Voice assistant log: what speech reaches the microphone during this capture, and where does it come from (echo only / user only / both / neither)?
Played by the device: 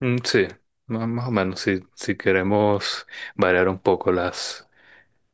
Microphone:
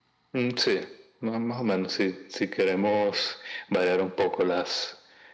echo only